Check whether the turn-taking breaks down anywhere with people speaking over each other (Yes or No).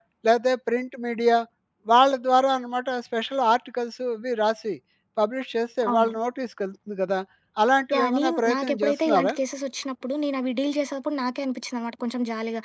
Yes